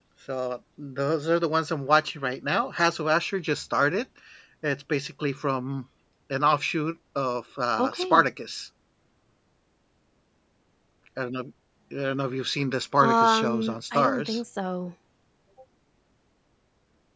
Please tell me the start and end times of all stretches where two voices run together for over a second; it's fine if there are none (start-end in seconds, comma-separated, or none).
13.0-14.4